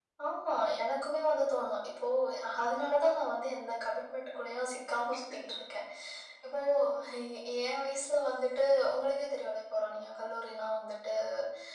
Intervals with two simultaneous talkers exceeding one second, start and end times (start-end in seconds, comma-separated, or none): none